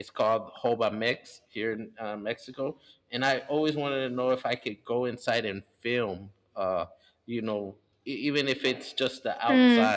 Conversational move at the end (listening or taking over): taking over